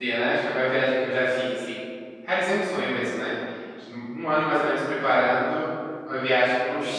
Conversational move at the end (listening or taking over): listening